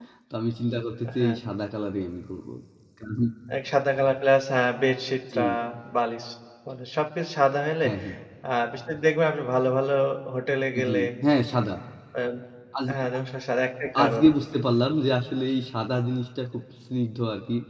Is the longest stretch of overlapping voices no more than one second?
Yes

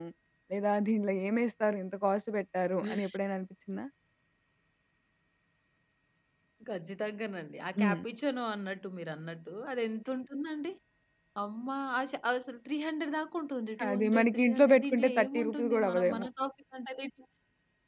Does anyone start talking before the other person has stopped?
Yes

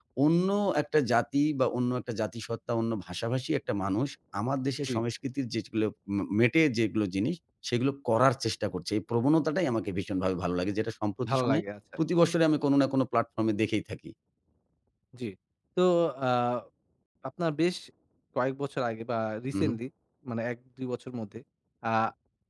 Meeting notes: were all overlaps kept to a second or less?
Yes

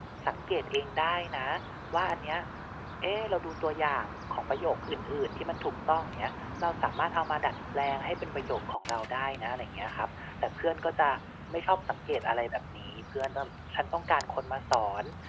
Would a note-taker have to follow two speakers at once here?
No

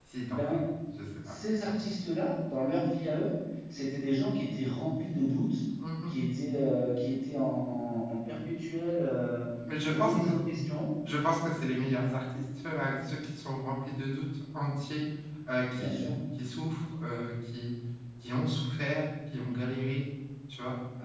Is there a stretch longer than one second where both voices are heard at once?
No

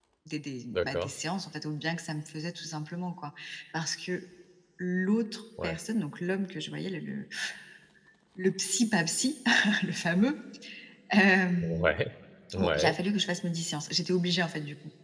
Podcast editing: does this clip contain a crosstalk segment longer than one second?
No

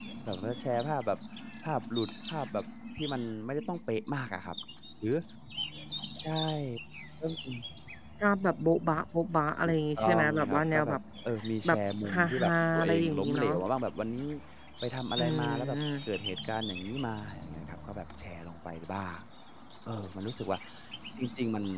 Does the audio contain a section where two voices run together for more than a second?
Yes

